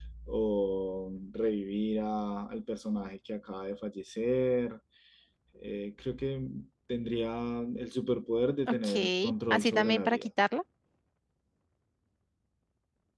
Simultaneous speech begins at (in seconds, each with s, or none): 8.7 s